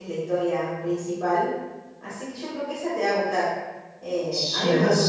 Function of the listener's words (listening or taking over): taking over